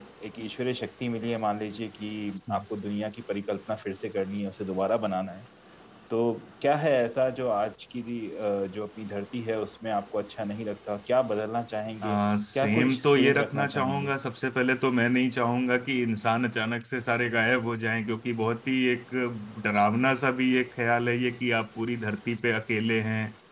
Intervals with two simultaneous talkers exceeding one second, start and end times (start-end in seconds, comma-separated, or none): 12.6-14.1